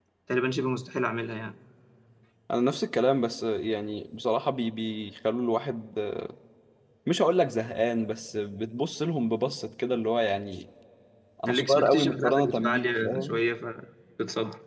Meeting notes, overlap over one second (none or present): present